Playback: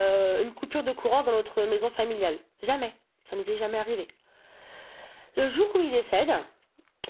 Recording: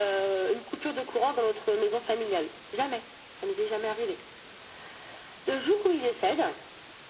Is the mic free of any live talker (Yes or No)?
Yes